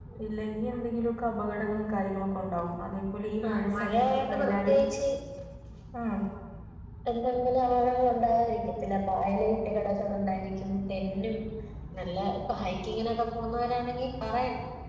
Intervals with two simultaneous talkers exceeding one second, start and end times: 3.5-4.8

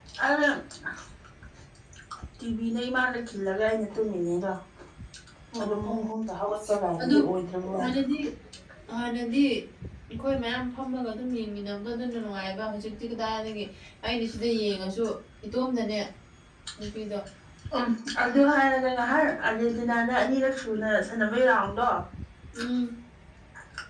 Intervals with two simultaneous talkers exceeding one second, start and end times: none

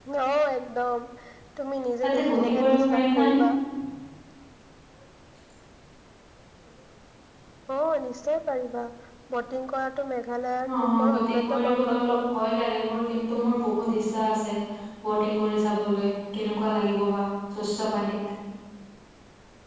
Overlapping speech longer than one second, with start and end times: 2.0-3.4, 10.8-12.3

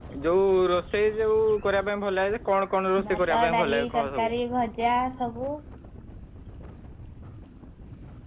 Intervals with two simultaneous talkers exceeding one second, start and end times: 3.1-4.3

